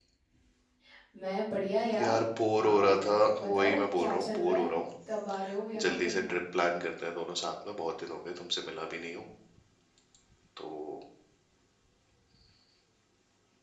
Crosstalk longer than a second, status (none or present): present